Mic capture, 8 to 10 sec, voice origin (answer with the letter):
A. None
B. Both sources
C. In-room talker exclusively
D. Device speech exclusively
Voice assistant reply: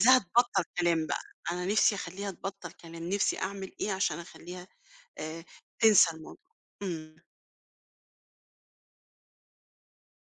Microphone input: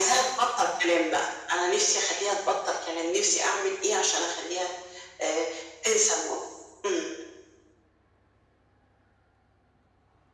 A